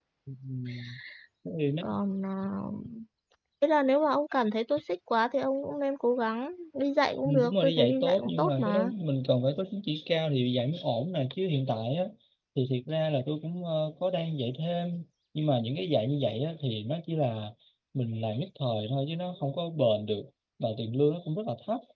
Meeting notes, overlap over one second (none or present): present